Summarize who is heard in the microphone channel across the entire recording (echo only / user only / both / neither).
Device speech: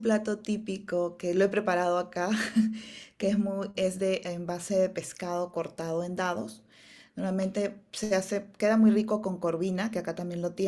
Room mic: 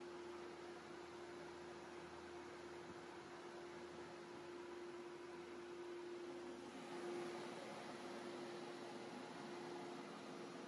neither